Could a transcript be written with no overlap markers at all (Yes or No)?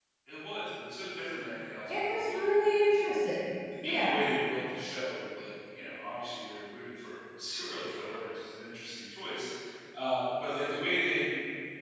No